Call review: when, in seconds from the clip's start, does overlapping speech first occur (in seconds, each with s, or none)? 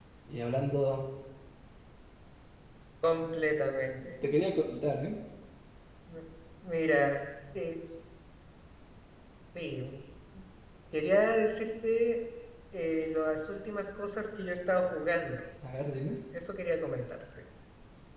none